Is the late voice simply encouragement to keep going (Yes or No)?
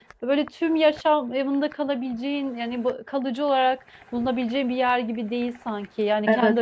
No